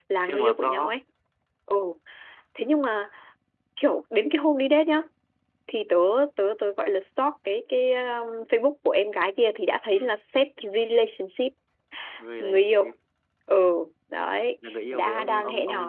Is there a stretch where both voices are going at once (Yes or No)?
Yes